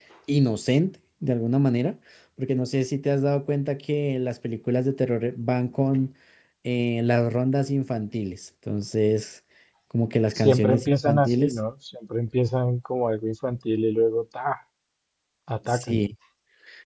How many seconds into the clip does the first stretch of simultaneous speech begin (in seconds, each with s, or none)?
10.3 s